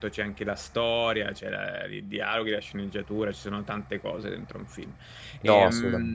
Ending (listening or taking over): listening